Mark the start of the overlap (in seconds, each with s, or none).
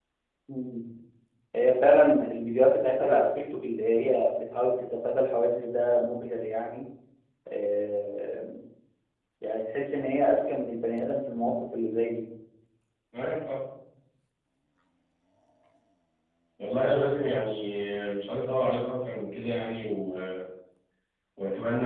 none